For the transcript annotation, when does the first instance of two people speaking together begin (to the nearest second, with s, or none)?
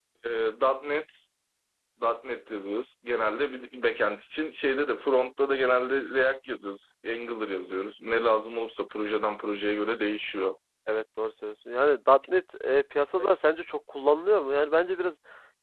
none